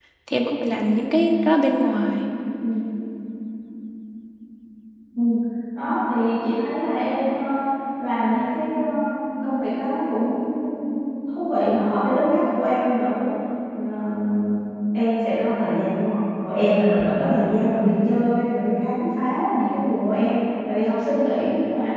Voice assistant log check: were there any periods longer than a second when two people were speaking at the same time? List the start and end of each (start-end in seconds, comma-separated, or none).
none